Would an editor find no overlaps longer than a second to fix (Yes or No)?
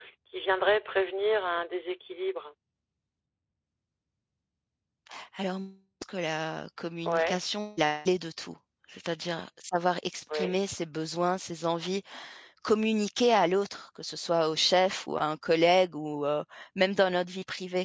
Yes